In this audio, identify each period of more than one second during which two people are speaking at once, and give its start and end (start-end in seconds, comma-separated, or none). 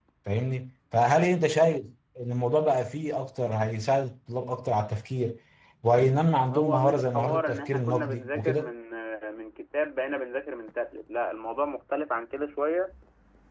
6.4-8.7